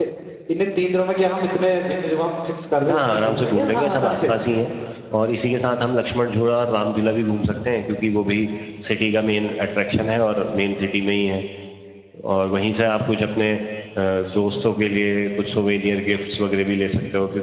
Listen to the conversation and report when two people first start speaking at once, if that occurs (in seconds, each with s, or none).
2.9 s